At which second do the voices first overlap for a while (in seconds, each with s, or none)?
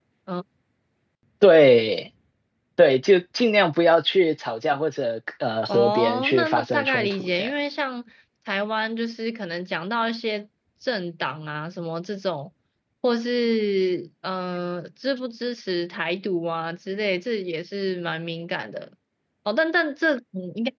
5.7 s